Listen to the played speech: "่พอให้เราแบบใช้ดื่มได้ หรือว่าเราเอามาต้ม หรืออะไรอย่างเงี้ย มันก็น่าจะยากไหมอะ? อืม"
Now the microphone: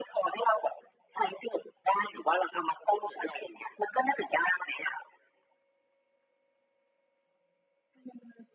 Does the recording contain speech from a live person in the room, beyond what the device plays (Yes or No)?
No